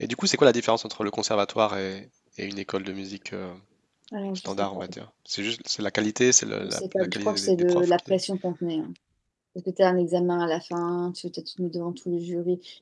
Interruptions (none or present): present